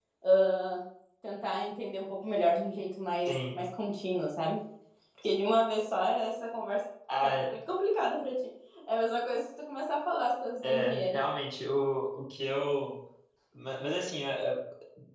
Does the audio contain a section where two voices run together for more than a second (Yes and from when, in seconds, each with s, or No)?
No